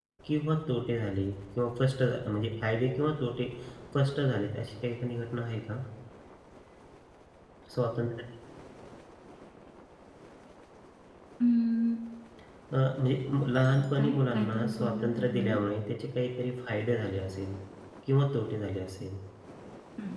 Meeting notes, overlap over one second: present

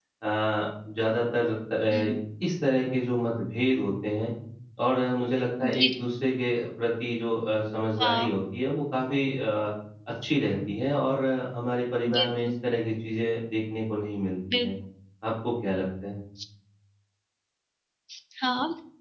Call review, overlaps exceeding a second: none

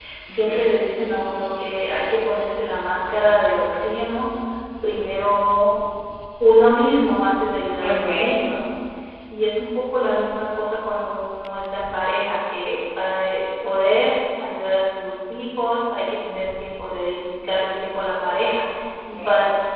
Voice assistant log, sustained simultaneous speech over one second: none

